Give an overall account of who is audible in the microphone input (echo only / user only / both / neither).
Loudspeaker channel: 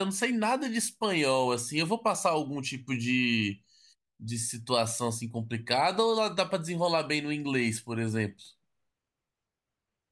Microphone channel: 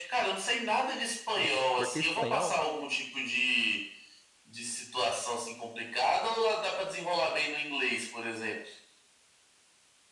both